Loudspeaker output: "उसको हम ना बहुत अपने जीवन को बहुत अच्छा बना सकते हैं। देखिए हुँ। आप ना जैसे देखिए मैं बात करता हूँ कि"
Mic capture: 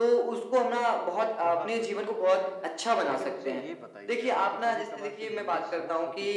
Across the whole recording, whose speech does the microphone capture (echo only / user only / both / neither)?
both